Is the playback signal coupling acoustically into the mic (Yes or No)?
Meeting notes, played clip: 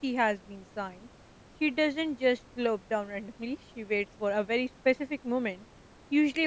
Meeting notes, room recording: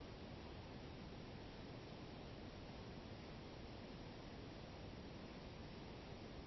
No